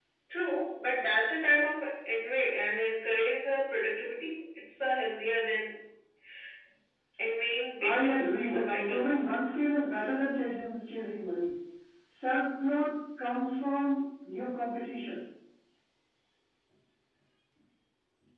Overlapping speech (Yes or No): Yes